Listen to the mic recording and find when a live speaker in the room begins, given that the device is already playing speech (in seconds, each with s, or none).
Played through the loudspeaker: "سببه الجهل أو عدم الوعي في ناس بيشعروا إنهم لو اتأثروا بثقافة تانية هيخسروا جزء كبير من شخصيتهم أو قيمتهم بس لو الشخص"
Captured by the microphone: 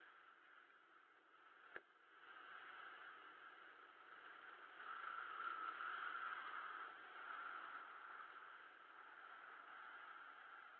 none